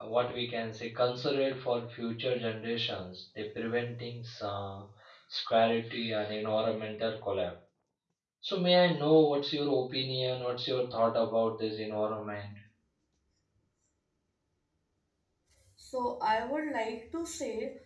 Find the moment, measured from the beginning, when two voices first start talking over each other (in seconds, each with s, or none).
none